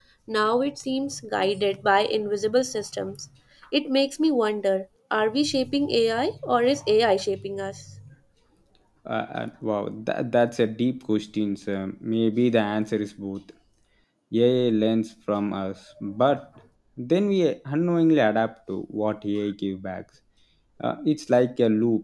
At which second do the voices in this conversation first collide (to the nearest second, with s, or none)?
none